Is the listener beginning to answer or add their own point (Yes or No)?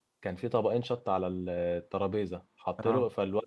No